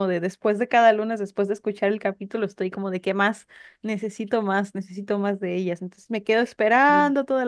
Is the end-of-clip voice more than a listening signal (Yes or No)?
No